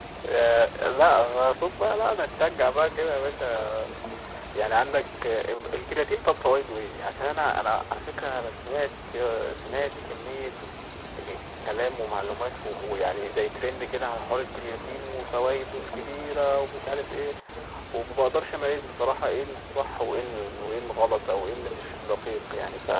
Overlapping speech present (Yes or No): No